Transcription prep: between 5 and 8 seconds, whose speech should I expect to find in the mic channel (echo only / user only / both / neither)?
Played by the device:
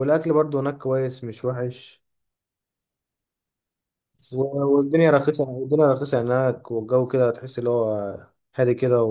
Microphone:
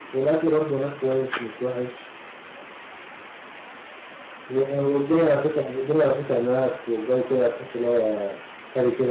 echo only